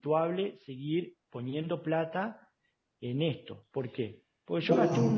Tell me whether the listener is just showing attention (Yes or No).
Yes